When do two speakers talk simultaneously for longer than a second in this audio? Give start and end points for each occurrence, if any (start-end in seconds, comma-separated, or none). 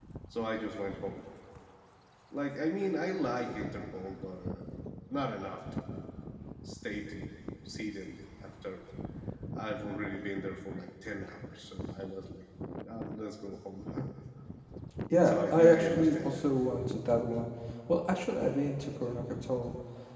15.2-16.5